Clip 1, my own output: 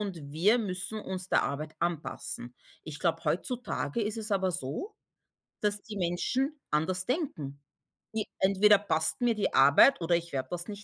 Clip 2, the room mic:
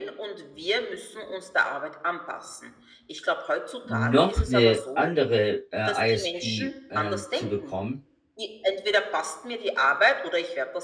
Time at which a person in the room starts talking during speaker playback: 3.8 s

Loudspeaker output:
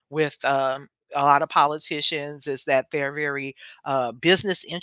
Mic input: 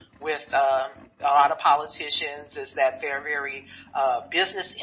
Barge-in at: none

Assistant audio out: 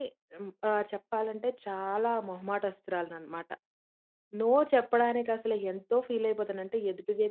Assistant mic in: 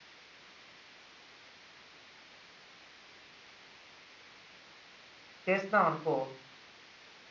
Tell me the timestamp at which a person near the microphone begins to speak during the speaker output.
5.5 s

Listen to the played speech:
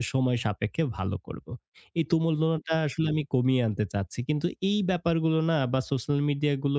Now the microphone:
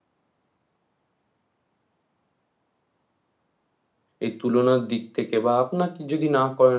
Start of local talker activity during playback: 4.2 s

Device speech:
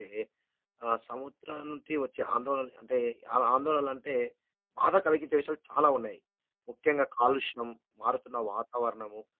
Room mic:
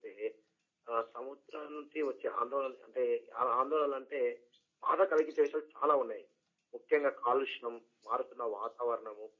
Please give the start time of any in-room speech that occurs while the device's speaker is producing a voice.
none

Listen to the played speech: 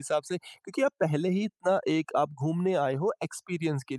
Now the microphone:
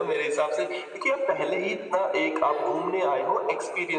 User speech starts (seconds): 2.4 s

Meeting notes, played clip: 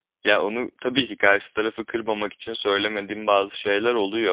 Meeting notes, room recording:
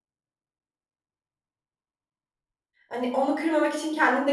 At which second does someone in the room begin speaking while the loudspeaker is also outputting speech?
2.9 s

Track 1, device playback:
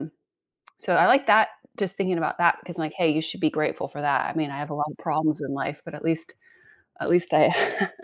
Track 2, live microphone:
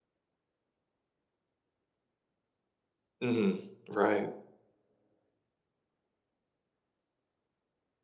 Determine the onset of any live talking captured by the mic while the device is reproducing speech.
3.2 s

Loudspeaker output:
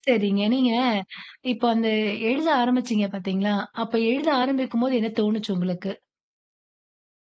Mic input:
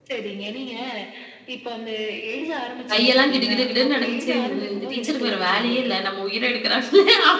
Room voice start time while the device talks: 2.9 s

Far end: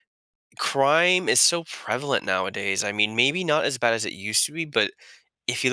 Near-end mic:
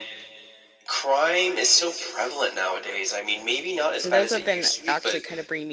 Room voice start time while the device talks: 4.0 s

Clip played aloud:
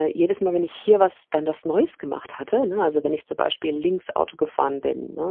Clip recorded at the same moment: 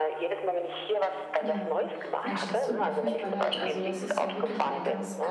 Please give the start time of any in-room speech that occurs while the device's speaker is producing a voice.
1.4 s

